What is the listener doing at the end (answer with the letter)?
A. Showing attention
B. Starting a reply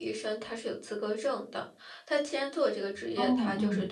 A